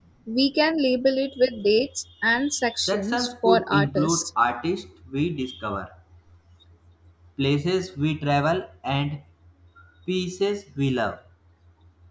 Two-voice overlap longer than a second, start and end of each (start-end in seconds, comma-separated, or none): 2.8-4.2